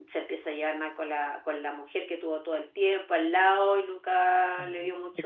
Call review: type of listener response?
taking over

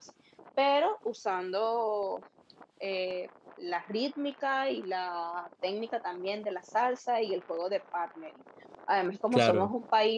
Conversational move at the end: listening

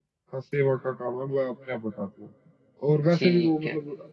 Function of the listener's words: listening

